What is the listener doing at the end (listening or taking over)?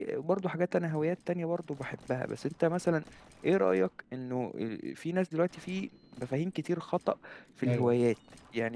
listening